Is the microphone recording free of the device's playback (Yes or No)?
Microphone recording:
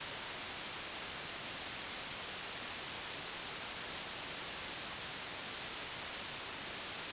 Yes